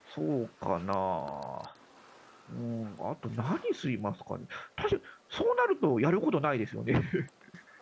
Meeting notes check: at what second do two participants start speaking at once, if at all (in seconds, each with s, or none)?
none